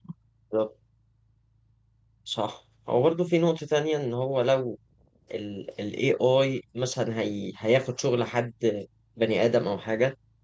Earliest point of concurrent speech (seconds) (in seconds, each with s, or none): none